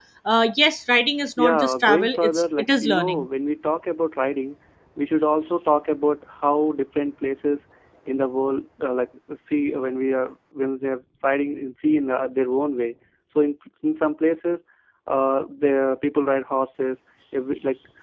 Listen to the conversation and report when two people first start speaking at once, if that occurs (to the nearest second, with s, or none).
1 s